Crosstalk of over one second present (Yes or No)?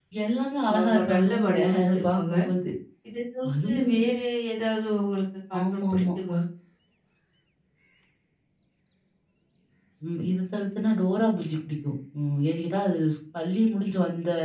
Yes